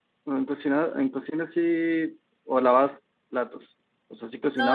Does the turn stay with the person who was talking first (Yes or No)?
No